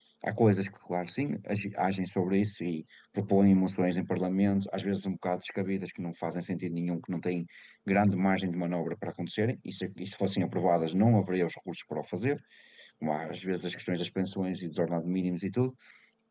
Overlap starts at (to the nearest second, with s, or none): none